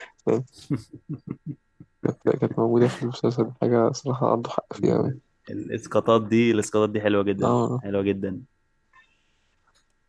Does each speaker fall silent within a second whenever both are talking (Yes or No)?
Yes